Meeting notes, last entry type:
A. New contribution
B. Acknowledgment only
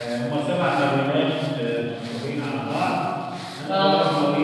B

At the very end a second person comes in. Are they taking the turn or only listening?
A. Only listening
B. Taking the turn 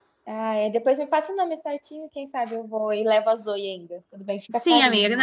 B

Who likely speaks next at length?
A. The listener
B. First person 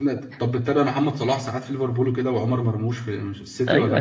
A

